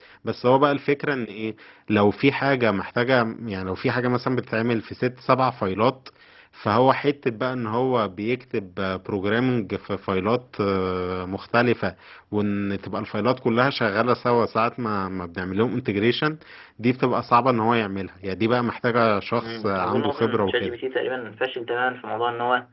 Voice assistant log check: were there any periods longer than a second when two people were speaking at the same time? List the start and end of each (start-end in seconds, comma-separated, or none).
19.4-20.8